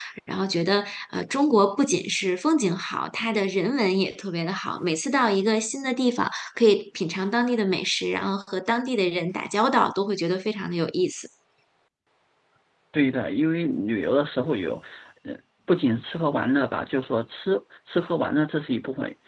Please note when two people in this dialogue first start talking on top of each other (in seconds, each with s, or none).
none